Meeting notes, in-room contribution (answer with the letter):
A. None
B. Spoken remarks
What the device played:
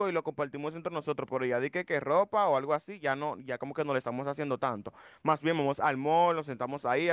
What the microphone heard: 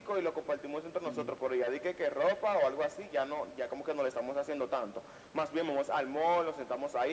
B